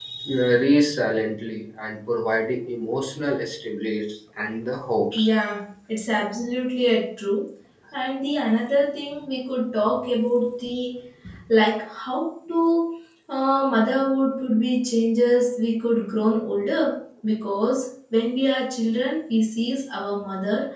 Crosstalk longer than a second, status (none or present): none